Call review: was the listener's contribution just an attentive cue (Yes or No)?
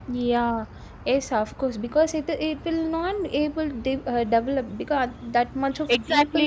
No